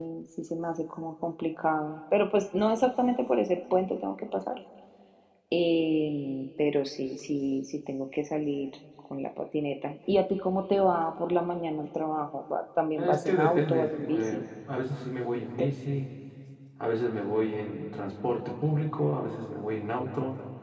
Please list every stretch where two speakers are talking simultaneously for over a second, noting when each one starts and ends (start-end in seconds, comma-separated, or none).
13.0-14.4